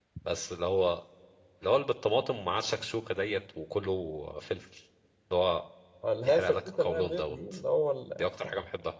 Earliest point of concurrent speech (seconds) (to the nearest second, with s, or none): 6 s